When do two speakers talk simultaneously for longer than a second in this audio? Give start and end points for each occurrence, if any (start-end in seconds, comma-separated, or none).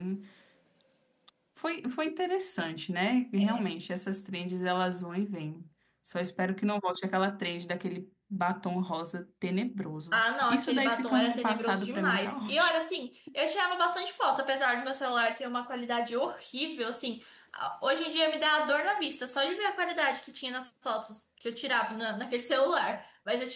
10.1-12.8